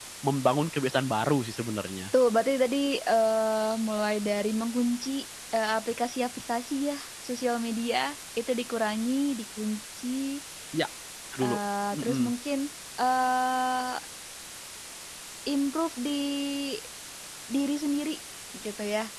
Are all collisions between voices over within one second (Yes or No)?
Yes